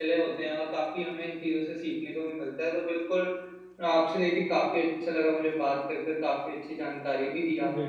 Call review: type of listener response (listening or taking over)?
listening